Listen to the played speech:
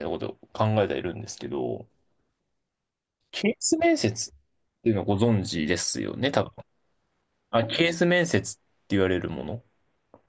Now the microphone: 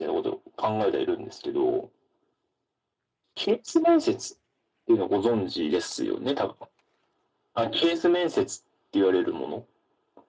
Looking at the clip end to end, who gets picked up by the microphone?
echo only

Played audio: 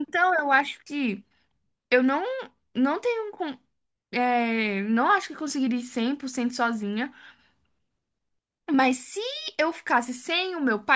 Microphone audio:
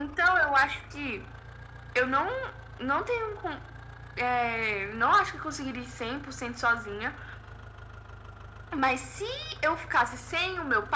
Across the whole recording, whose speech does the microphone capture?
echo only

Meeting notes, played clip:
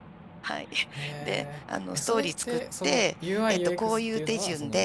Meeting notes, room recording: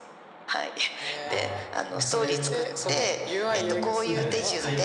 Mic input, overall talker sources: both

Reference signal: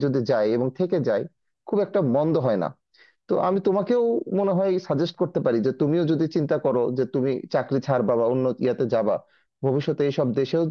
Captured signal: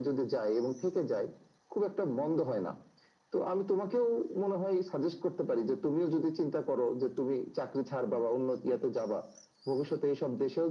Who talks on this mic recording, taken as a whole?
echo only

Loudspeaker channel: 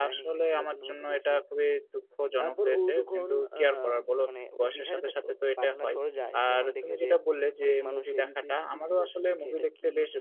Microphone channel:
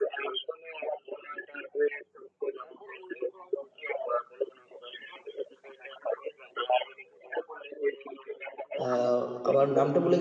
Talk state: both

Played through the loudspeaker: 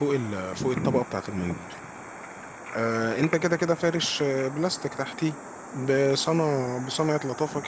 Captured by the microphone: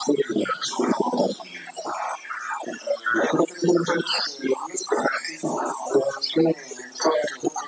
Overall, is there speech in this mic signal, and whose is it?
echo only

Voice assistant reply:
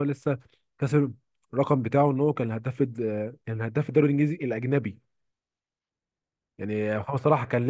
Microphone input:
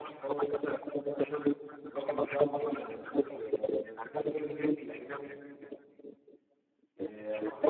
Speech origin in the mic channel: echo only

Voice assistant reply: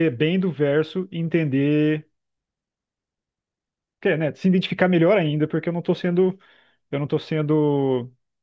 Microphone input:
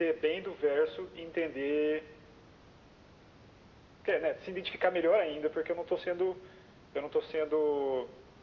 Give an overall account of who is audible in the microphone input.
echo only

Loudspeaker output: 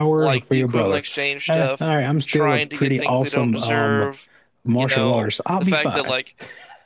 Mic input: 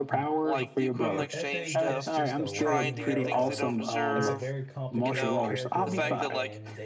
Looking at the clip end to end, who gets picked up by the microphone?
both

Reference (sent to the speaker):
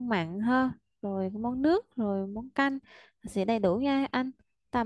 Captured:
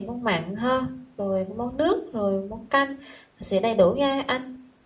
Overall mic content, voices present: echo only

